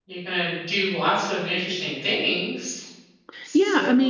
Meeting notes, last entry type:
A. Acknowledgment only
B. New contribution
B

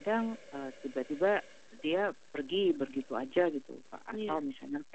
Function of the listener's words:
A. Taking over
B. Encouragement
B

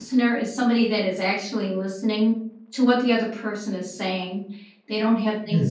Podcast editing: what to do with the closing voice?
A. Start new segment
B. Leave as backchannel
B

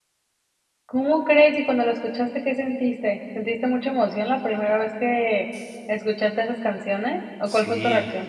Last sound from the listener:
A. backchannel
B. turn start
B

